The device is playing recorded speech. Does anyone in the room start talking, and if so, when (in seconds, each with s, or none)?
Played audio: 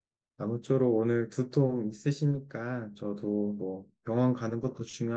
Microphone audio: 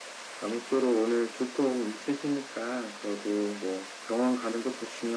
none